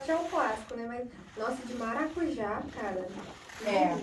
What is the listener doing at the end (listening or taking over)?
taking over